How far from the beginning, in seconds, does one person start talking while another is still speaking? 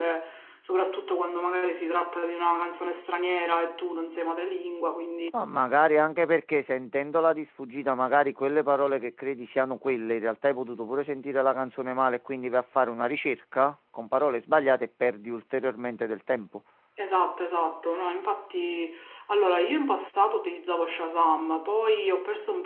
none

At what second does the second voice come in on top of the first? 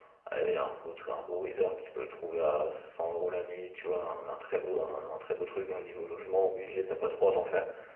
none

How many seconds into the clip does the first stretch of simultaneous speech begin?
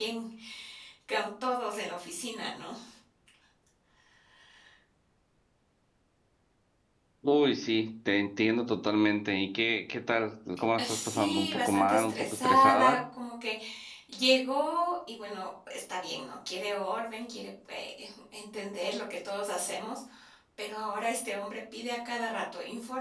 10.8 s

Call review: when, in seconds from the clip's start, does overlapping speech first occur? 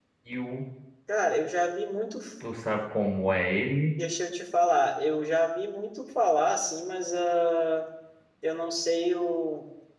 none

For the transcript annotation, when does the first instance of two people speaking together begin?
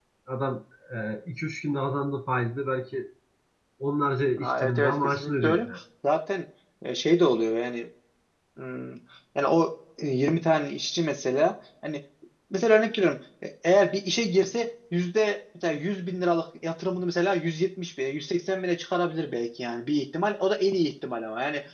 4.4 s

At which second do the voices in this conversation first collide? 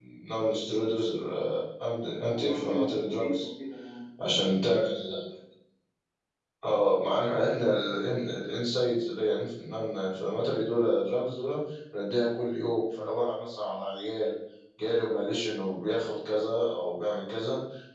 2.2 s

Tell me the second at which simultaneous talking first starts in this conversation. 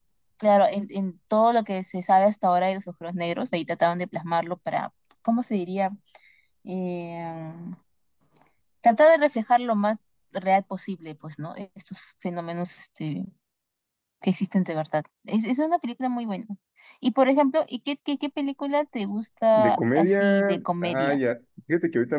19.5 s

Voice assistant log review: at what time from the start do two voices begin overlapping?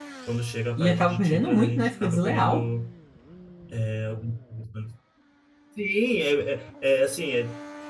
0.8 s

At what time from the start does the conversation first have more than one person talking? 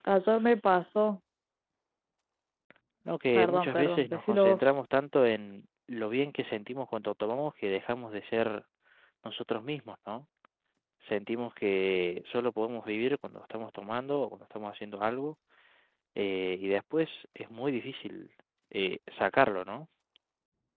3.4 s

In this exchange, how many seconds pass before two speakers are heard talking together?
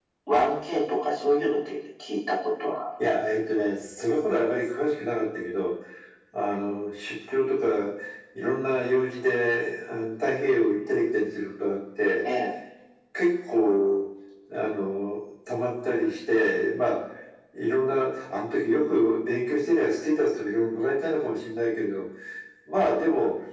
none

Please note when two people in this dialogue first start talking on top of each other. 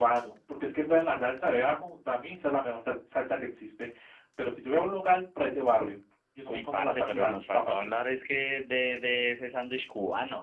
6.5 s

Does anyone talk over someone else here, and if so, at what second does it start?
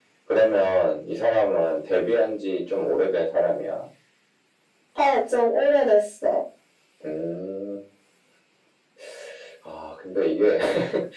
none

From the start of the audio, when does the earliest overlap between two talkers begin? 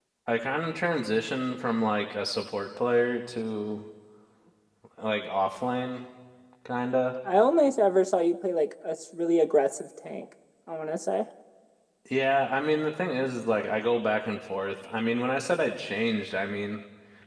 none

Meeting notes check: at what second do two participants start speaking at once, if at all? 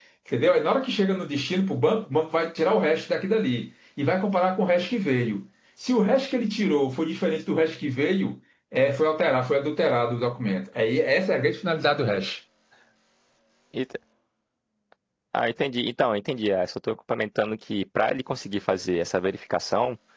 none

